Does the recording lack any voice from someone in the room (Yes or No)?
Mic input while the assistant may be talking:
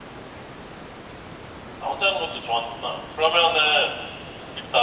Yes